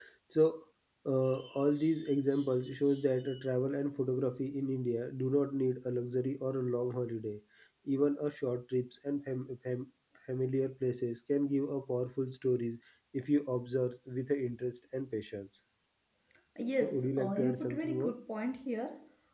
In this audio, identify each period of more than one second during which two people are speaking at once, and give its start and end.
16.8-18.2

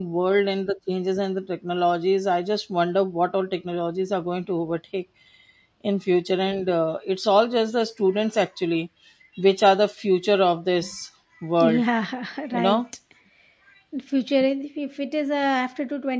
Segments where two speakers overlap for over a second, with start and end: none

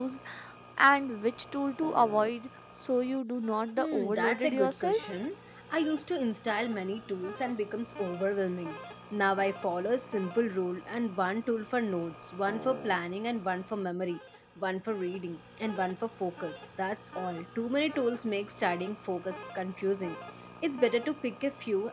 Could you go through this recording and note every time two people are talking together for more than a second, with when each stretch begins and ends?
3.8-5.0

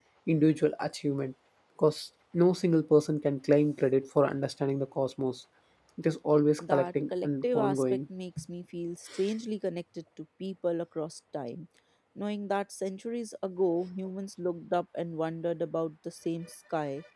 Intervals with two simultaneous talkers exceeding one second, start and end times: 6.6-8.0

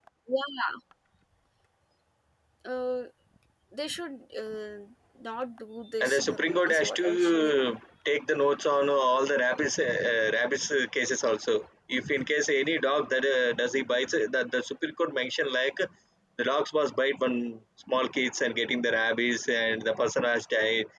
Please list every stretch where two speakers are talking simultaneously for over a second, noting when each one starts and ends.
6.0-7.6

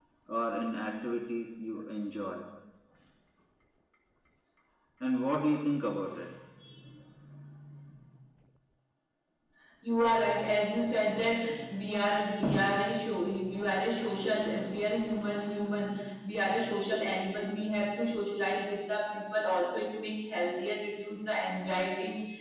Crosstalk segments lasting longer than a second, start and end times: none

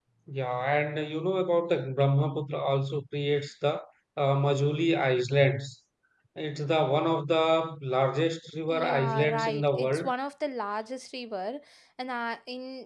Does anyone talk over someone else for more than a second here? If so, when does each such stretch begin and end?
8.7-10.1

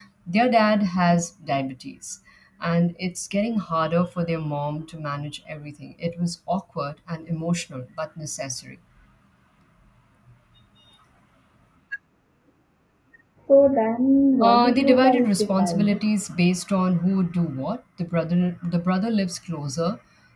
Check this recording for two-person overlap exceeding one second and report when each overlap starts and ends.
14.4-16.0

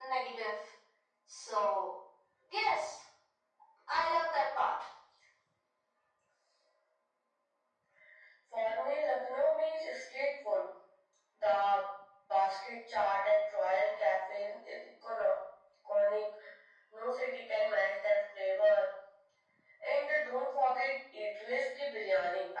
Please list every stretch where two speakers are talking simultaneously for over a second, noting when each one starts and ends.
none

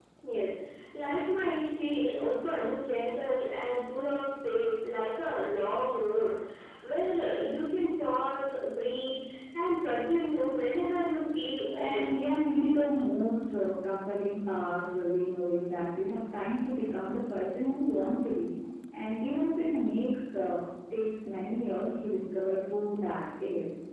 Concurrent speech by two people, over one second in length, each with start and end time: none

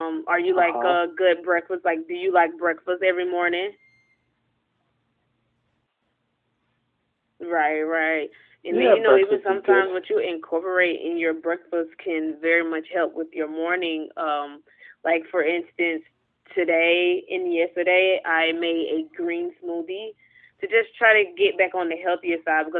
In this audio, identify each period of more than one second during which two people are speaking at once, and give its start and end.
8.7-9.9

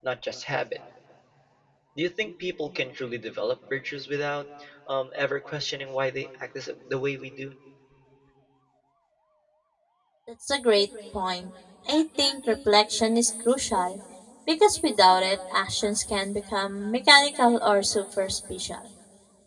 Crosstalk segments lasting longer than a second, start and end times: none

